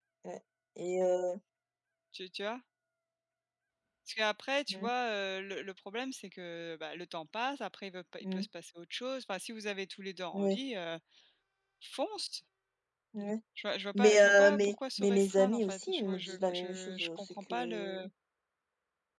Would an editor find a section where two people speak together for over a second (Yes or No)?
Yes